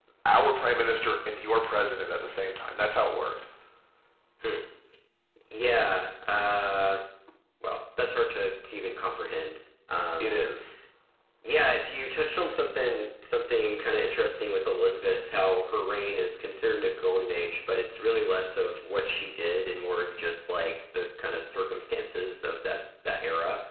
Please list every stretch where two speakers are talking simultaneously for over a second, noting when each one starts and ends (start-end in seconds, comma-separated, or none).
none